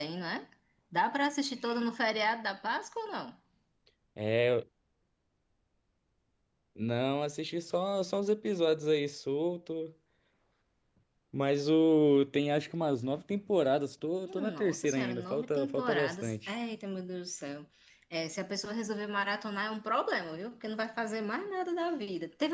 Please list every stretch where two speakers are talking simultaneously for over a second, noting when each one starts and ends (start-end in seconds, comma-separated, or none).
14.2-16.5